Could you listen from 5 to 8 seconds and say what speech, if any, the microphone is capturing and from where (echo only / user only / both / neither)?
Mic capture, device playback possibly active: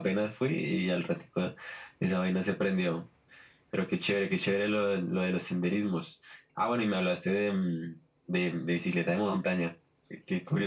echo only